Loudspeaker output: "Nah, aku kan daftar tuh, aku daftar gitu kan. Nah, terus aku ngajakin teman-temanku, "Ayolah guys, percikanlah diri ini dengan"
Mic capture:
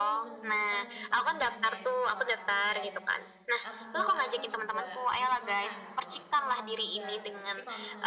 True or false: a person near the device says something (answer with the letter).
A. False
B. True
B